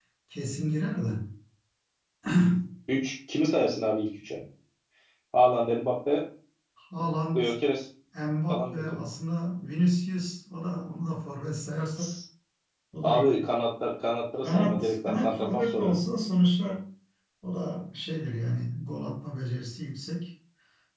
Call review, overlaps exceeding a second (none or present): present